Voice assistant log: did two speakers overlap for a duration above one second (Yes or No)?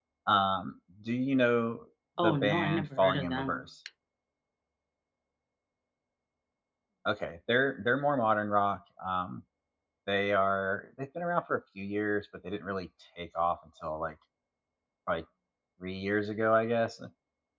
Yes